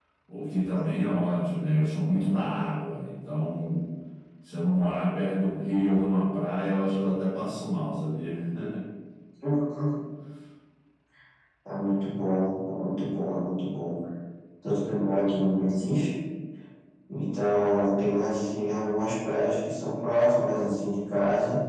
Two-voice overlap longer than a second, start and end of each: none

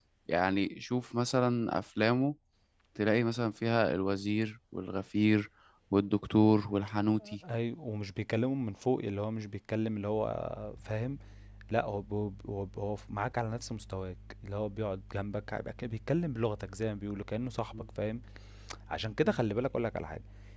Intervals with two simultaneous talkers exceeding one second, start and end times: none

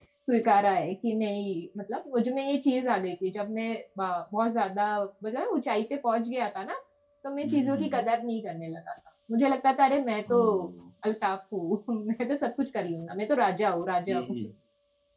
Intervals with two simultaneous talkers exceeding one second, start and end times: none

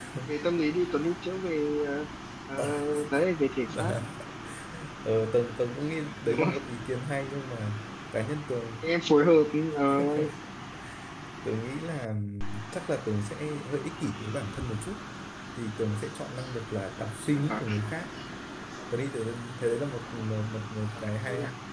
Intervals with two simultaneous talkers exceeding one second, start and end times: none

